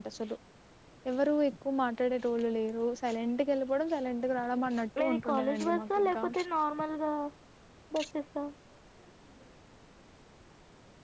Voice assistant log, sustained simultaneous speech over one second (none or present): present